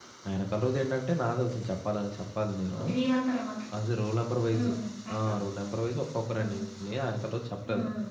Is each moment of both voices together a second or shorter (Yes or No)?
Yes